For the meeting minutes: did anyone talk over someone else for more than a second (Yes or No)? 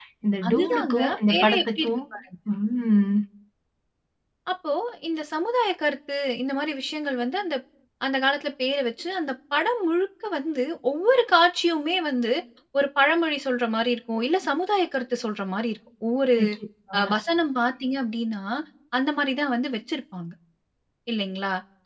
Yes